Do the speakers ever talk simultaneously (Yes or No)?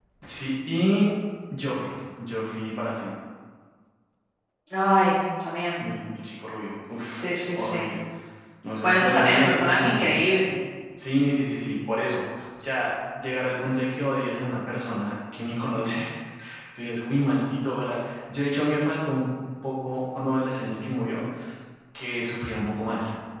Yes